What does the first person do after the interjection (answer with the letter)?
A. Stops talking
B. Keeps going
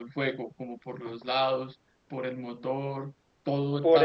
A